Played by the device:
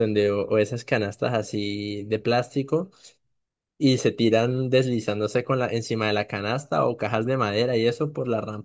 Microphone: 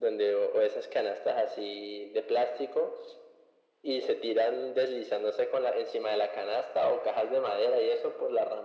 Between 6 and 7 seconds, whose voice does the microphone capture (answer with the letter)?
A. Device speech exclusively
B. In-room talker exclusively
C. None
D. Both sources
A